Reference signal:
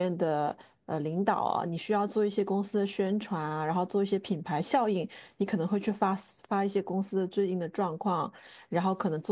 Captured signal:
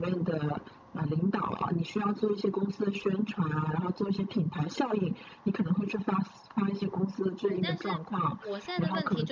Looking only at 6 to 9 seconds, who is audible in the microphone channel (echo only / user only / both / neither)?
both